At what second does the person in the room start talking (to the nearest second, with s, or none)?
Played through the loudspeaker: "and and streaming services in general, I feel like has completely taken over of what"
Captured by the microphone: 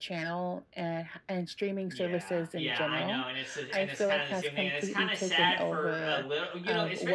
2 s